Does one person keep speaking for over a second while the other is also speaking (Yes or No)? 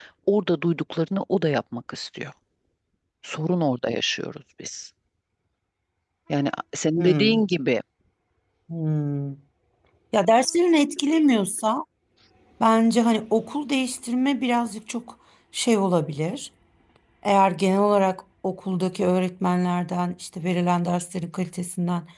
No